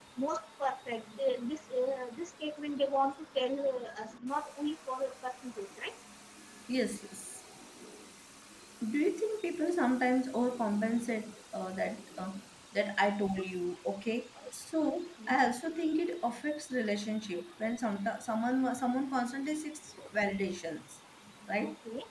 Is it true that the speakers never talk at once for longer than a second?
Yes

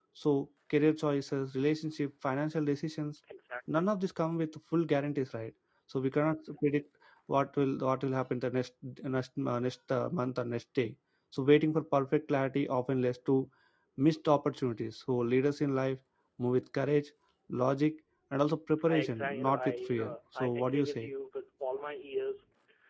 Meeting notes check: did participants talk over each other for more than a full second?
Yes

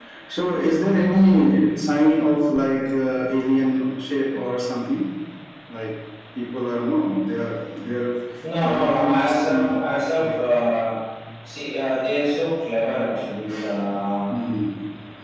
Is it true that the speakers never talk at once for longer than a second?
No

